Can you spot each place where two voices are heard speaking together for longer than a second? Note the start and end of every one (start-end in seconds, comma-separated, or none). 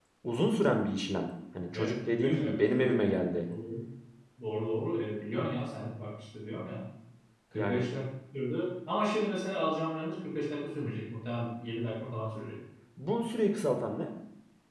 1.7-3.0